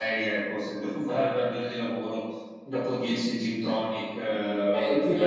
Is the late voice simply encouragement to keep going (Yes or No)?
No